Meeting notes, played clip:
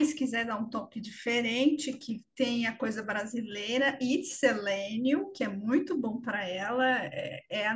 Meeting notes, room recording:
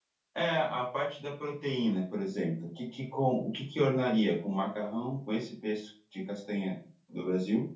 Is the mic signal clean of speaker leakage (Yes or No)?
Yes